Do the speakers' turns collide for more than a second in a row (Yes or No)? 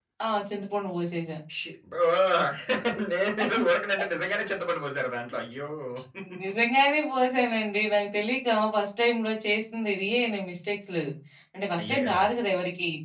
No